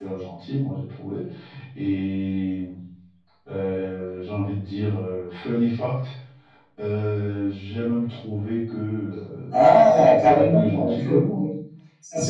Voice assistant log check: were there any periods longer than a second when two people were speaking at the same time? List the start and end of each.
9.5-11.4

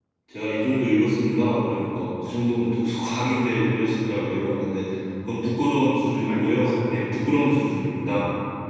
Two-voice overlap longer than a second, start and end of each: 5.7-7.2

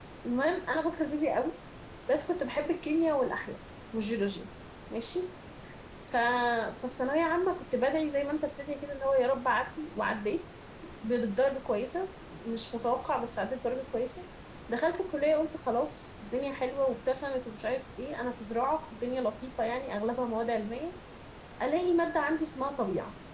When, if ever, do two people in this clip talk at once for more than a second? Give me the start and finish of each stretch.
none

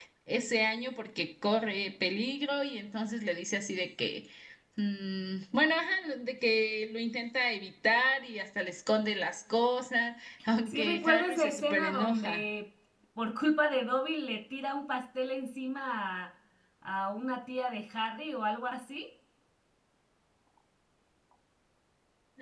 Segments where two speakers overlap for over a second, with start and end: 10.7-12.4

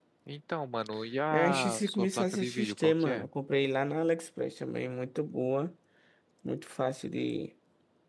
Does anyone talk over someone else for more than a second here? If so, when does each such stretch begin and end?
1.3-3.3

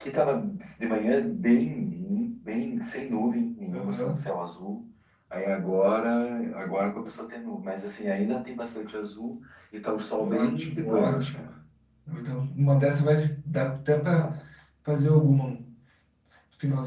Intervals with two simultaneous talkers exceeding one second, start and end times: 10.2-11.5

